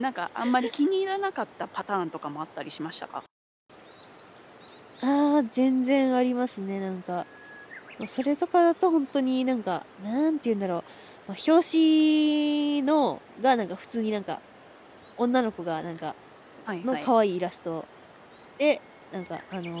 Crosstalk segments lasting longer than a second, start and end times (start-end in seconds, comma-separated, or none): none